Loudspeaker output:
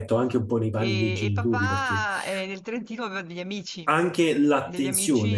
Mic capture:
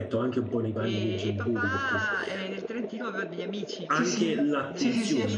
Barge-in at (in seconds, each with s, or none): 3.9 s